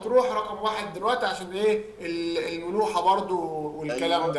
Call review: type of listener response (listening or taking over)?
taking over